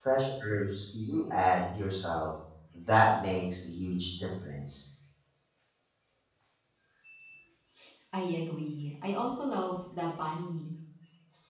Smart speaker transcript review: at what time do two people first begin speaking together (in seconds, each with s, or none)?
none